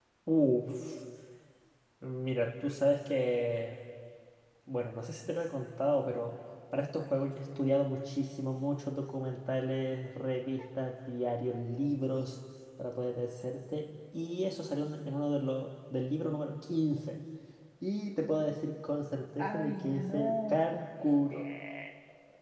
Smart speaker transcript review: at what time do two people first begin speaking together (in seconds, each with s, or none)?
19.4 s